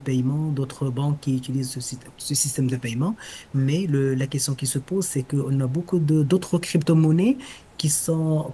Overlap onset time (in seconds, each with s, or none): none